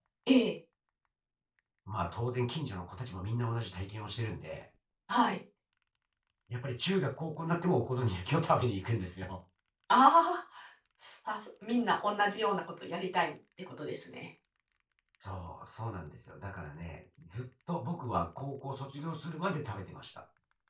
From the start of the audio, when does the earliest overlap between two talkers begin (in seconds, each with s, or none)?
none